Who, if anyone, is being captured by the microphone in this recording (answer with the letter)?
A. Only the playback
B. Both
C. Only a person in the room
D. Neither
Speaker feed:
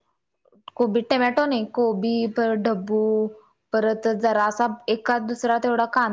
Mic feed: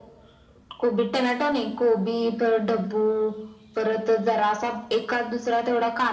A